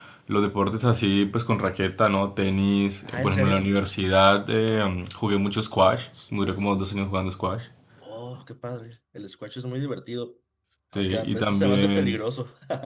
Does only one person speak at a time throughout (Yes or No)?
No